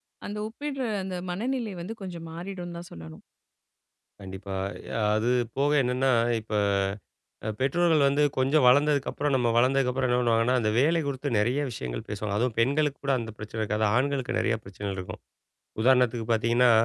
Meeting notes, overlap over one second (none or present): none